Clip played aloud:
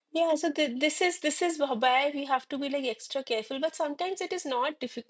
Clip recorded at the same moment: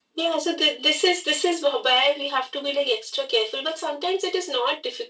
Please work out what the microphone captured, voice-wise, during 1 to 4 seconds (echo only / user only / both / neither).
echo only